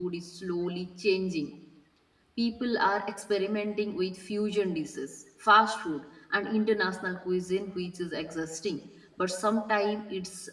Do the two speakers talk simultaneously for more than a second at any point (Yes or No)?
No